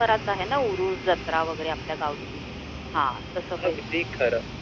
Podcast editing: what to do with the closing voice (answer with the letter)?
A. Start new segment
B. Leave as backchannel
A